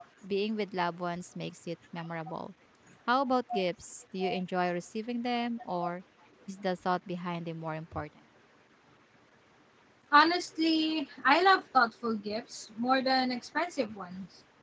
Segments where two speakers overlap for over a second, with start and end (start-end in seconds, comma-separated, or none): none